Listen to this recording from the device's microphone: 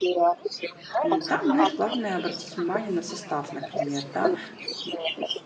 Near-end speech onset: 1 s

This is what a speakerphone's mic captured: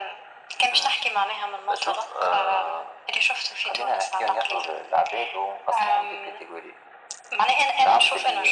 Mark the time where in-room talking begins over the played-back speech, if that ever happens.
none

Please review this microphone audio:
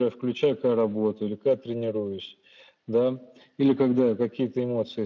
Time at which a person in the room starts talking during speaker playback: none

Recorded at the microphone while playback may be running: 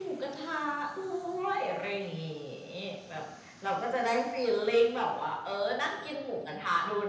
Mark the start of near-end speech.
none

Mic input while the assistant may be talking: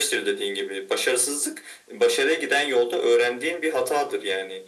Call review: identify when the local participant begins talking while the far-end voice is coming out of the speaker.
none

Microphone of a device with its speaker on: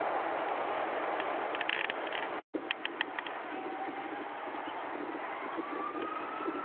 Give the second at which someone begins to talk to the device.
none

